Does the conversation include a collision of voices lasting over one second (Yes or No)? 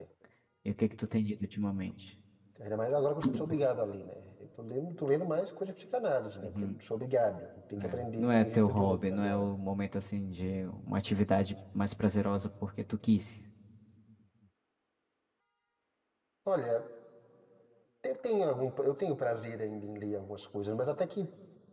Yes